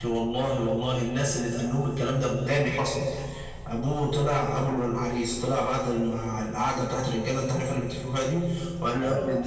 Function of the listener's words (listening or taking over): listening